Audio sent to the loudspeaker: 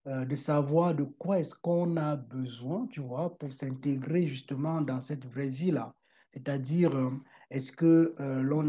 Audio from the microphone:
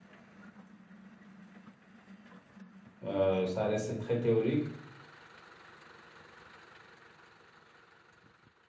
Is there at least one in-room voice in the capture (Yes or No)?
Yes